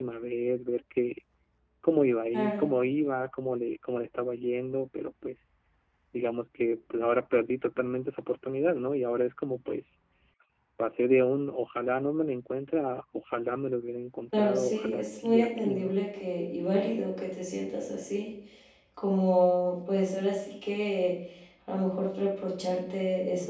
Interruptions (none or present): present